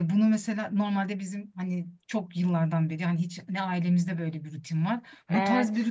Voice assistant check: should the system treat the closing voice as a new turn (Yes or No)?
No